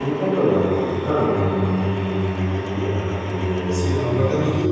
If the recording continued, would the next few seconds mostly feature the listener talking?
Yes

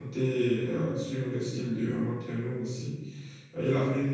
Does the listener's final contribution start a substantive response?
No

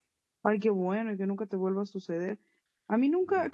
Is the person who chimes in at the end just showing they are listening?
Yes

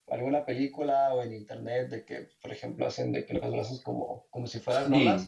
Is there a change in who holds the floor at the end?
Yes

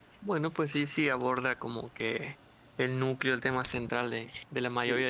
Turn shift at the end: No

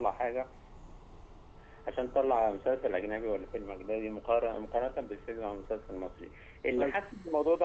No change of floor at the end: Yes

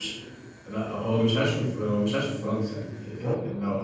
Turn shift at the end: No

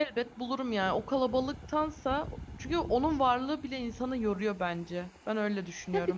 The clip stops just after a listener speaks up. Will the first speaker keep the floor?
No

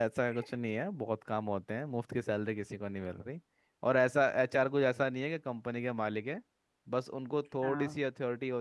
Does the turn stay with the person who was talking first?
Yes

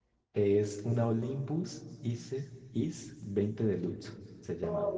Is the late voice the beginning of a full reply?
Yes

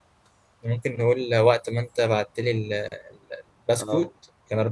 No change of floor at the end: Yes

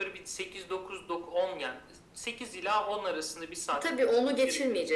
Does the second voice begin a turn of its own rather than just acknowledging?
Yes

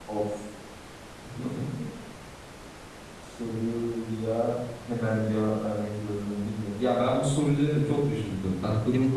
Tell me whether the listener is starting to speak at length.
Yes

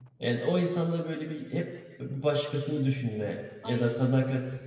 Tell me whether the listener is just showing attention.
Yes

